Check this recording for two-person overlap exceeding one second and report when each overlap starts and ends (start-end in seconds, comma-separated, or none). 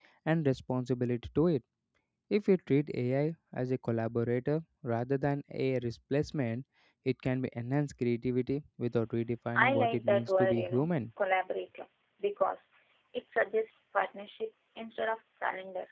9.6-10.9